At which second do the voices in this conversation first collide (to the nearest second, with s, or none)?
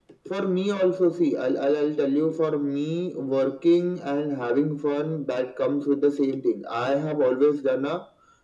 none